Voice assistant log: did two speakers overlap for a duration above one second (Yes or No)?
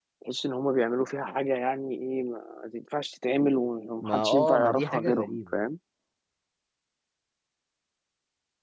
Yes